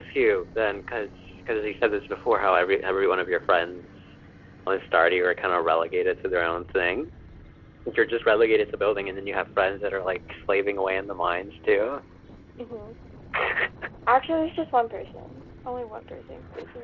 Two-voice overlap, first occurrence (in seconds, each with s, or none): none